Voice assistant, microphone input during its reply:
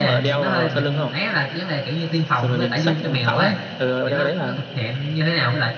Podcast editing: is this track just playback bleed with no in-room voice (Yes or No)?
No